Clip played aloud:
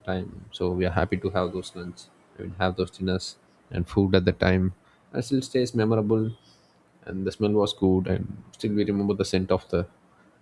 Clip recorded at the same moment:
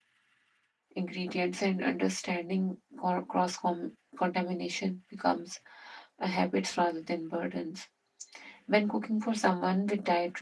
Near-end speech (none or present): present